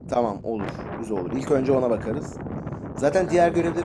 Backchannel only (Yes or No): Yes